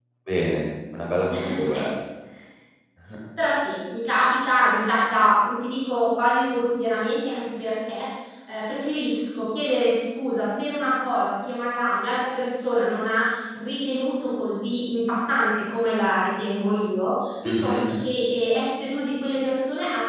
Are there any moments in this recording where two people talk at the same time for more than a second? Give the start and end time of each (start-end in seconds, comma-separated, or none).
none